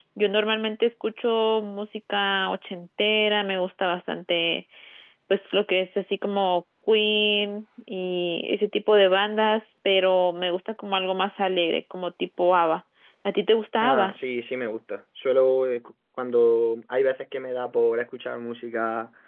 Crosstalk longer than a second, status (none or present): none